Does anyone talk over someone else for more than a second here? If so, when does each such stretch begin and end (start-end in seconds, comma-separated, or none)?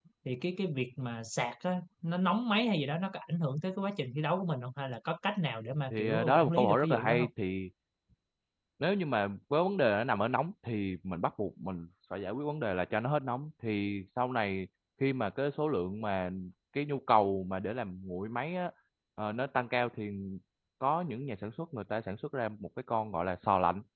5.9-7.3